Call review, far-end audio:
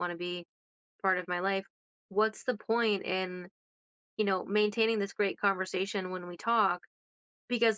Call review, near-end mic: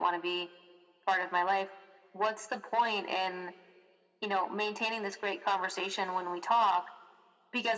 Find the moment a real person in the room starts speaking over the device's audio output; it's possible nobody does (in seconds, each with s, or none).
none